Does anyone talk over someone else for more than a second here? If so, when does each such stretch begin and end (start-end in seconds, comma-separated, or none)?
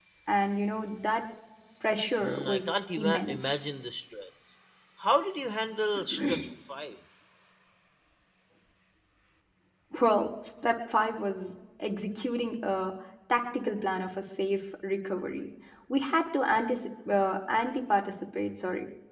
2.2-3.6